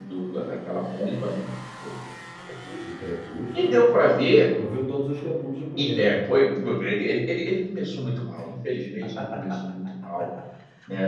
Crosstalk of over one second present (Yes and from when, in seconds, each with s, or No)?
No